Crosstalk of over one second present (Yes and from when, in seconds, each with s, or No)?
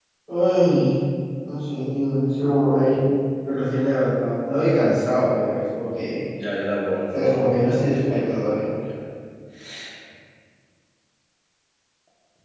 Yes, from 7.1 s